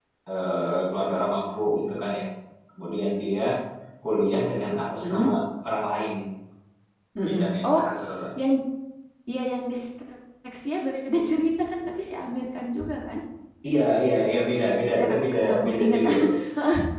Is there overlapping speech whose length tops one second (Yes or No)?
Yes